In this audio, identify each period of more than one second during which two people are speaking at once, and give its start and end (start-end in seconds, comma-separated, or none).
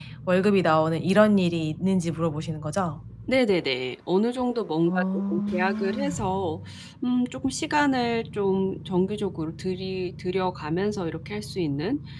4.9-6.2